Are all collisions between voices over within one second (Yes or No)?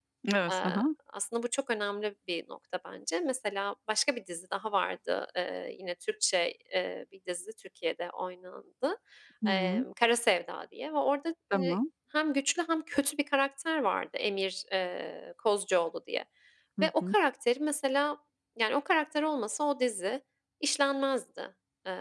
Yes